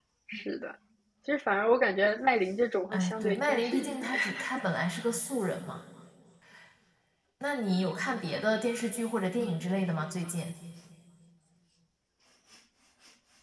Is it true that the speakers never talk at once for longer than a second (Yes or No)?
No